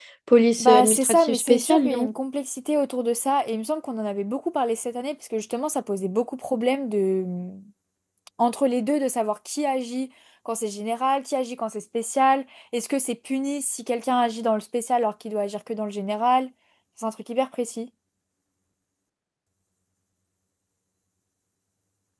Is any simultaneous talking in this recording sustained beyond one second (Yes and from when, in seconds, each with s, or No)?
Yes, from 0.6 s